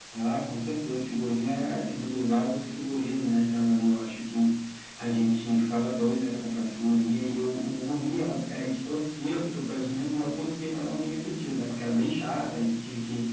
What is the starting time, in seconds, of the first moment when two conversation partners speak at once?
none

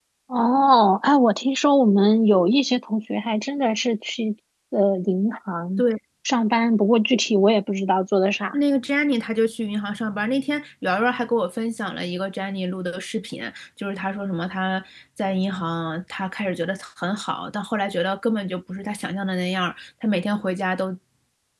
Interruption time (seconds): none

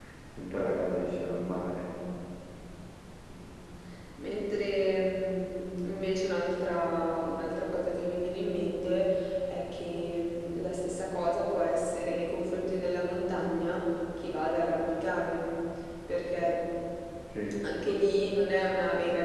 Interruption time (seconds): none

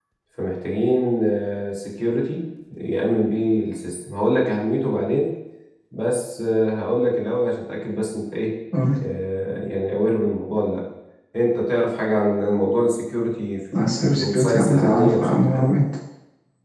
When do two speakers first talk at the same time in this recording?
13.7 s

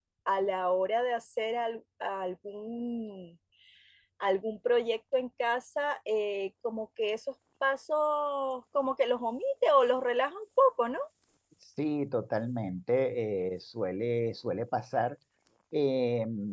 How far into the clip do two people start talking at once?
none

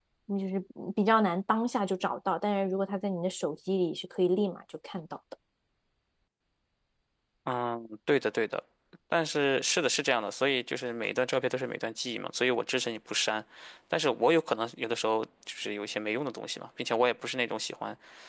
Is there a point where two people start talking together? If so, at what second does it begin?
none

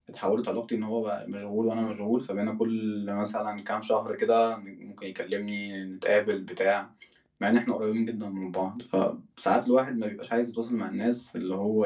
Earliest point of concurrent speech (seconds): none

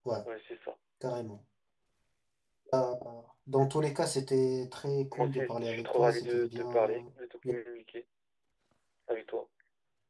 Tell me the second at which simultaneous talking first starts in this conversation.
5.1 s

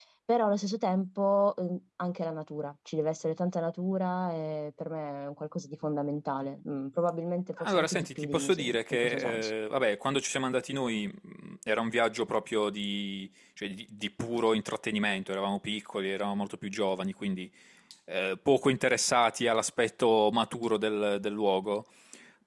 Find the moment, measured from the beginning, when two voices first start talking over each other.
7.6 s

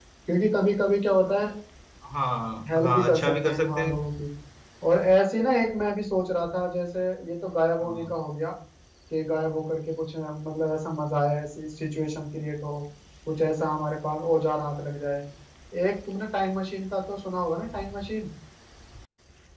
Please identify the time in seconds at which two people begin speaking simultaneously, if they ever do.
2.7 s

